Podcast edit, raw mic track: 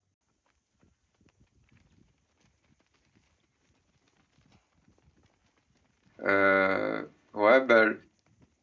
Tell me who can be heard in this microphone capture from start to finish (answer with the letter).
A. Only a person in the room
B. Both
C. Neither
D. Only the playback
A